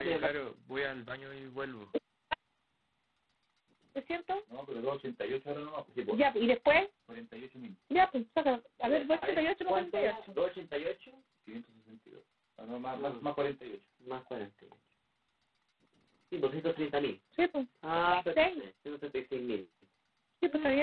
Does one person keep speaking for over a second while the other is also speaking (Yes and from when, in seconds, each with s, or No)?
No